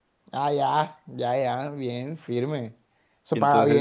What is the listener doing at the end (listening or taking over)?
taking over